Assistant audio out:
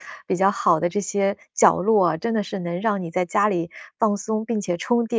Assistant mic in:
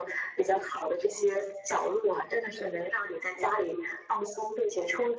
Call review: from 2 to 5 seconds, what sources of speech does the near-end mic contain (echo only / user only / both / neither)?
echo only